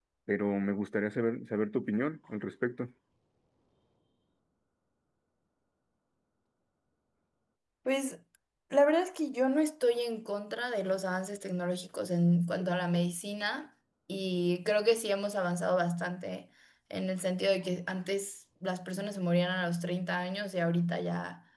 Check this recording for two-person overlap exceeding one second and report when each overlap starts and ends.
none

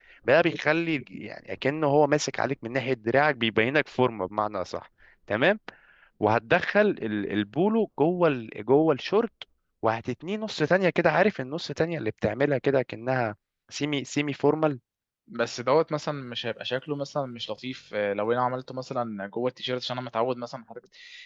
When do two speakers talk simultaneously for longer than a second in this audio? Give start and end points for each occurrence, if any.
none

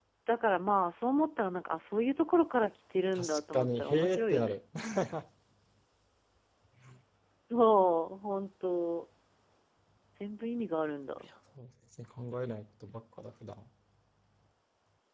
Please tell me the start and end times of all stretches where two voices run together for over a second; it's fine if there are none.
3.1-4.5

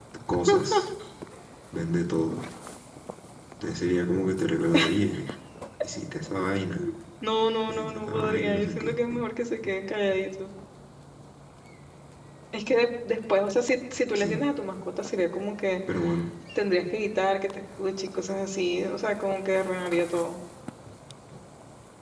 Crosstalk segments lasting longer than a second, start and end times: 7.7-8.9

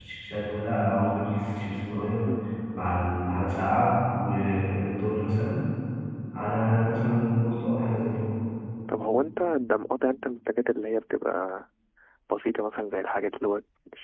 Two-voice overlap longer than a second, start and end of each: none

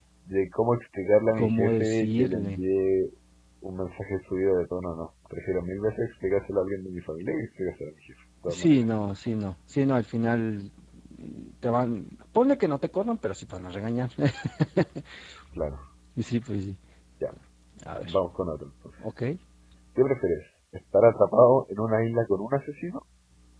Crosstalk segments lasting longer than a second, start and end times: 1.4-2.6

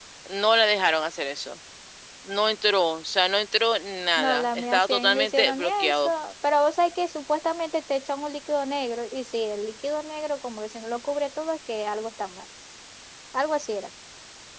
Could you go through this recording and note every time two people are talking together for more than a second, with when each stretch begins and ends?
4.2-6.1

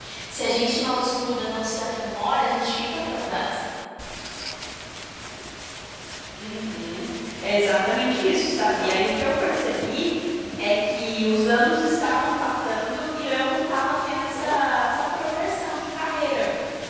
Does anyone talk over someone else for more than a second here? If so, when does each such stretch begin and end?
none

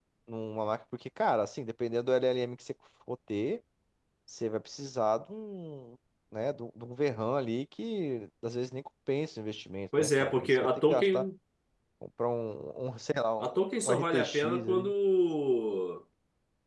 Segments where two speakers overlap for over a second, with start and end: 10.0-11.3, 13.4-14.9

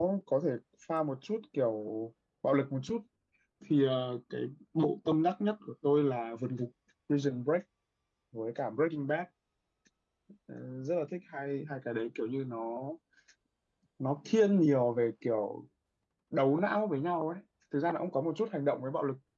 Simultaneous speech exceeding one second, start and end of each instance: none

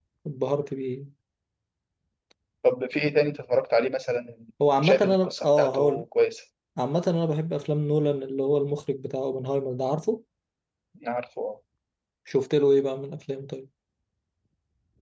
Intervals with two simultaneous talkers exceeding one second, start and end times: 4.8-6.0

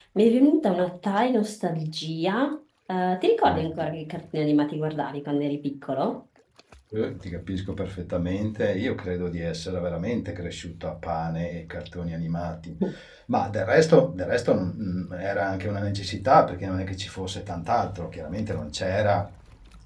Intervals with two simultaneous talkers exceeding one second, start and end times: none

